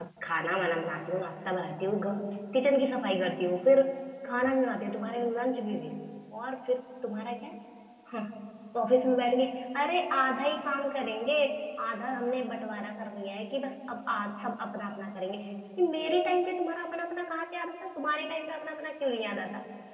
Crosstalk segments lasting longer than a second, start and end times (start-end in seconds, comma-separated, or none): none